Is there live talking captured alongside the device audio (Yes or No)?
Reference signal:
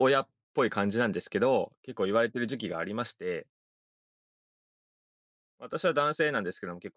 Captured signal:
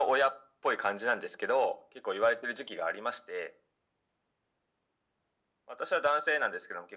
No